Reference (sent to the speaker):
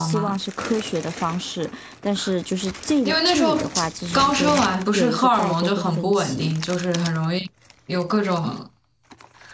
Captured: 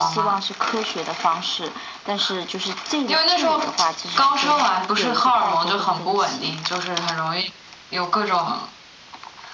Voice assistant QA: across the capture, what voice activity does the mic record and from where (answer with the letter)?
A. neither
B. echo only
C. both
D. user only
B